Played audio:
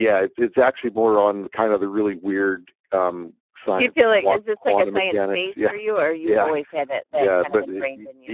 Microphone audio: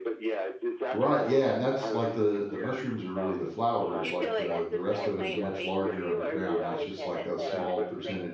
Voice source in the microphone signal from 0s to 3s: both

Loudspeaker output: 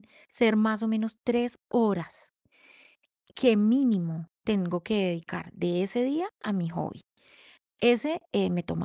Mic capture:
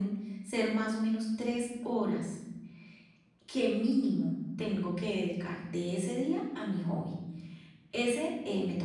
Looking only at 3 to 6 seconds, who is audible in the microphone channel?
echo only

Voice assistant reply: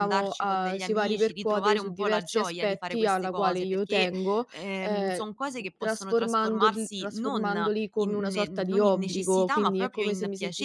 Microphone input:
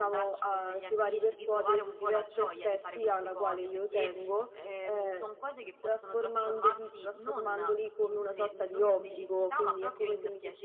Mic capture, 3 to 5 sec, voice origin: echo only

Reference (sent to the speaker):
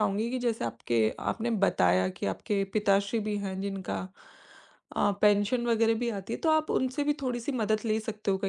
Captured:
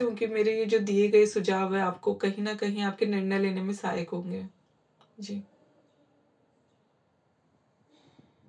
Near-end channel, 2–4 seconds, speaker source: user only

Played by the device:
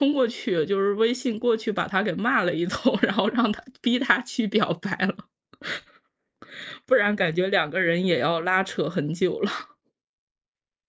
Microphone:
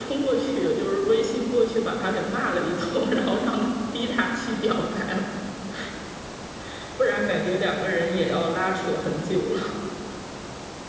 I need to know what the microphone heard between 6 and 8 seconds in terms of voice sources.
echo only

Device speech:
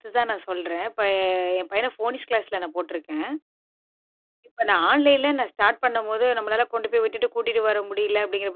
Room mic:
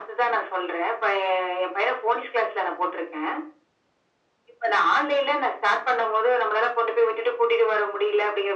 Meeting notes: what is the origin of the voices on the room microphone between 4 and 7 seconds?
echo only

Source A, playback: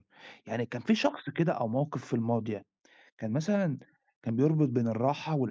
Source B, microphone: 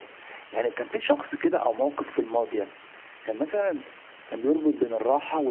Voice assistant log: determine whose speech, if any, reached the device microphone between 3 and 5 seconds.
echo only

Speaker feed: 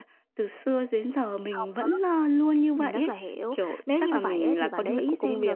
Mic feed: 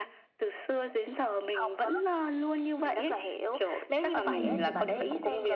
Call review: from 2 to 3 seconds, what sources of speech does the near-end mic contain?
echo only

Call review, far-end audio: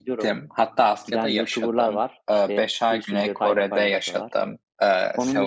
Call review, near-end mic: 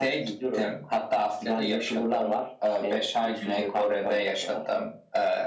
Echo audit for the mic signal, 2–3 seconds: echo only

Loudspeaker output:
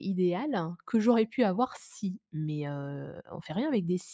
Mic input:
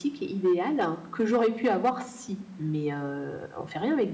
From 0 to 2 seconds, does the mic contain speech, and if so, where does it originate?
echo only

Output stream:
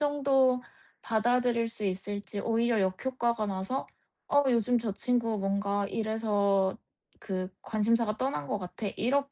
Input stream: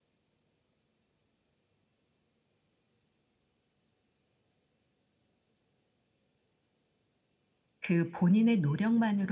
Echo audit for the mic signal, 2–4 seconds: neither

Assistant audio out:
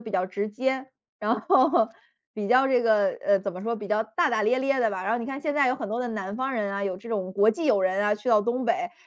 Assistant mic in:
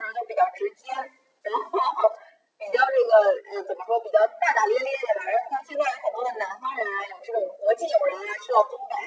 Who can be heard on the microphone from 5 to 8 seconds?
echo only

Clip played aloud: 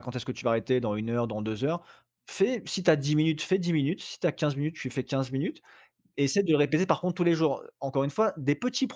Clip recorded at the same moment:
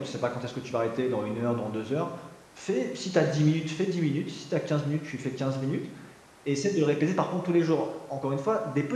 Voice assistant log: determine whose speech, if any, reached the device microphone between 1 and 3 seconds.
echo only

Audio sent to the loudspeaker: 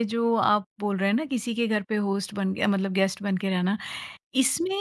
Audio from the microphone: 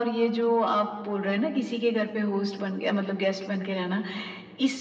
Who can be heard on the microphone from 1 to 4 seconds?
echo only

